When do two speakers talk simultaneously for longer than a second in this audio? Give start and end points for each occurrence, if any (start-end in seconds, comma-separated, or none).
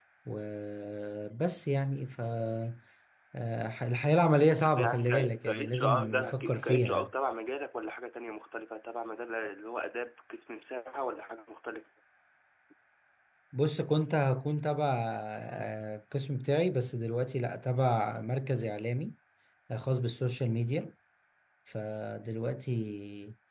4.7-7.1